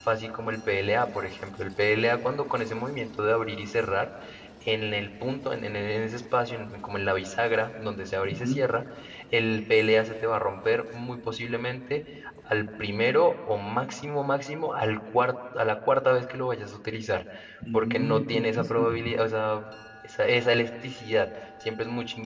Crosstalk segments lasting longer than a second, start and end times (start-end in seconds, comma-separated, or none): 17.7-19.1